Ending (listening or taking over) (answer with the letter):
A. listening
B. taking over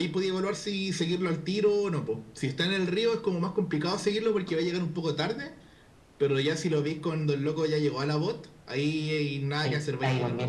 B